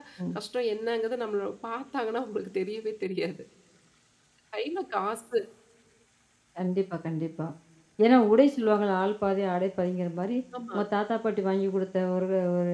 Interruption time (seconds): none

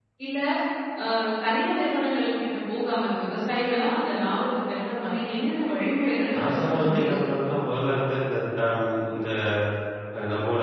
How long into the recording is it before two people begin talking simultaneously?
6.3 s

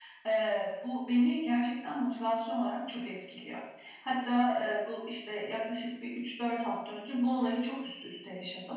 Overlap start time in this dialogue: none

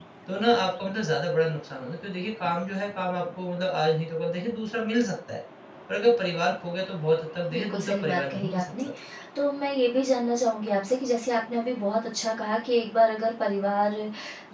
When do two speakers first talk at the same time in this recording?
7.5 s

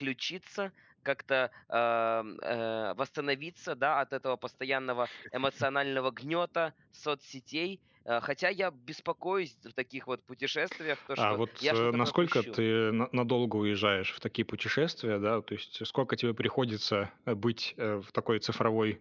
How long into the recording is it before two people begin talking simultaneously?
11.2 s

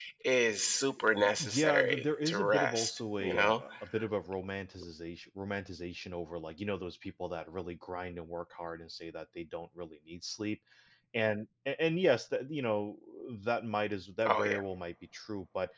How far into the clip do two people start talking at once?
1.4 s

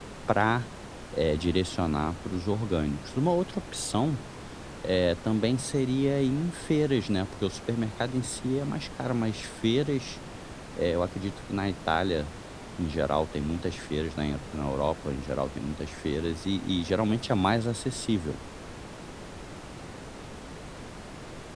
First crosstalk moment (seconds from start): none

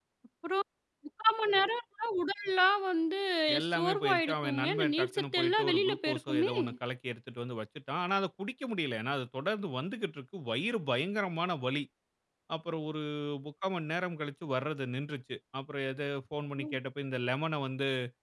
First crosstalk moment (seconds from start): 3.7 s

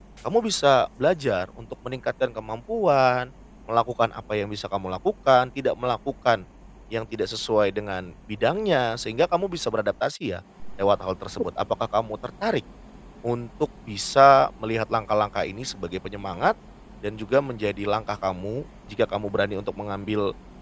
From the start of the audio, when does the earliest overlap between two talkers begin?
none

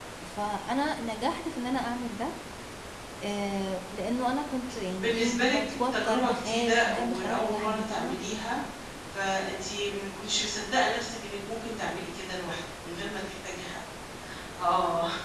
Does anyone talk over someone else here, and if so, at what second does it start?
5.0 s

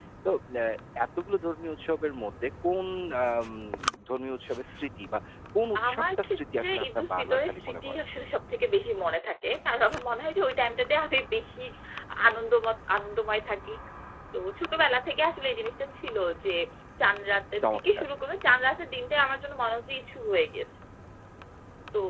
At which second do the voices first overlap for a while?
5.9 s

